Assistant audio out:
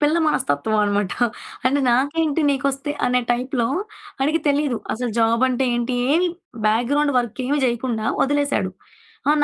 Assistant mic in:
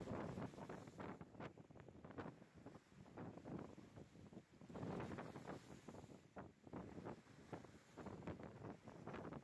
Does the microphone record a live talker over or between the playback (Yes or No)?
No